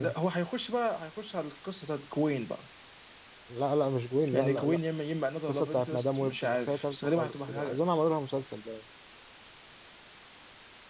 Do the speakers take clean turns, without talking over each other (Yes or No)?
No